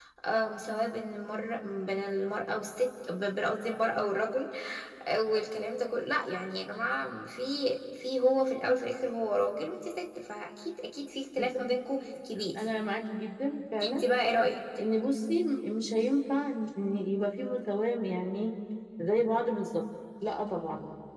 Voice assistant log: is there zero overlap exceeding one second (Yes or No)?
Yes